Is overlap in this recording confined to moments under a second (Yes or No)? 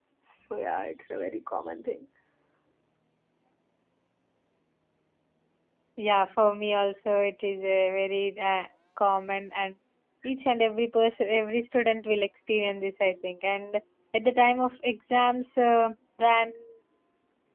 Yes